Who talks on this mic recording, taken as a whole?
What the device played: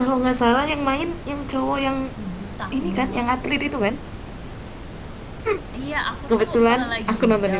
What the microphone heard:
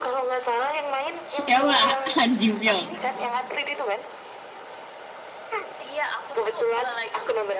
both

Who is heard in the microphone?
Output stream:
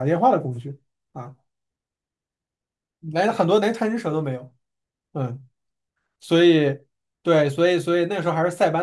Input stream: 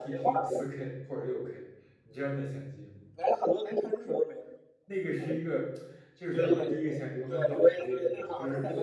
both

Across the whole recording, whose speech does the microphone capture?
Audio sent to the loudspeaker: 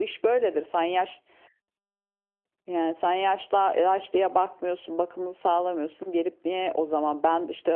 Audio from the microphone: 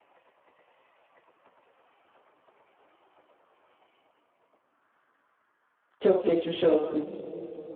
user only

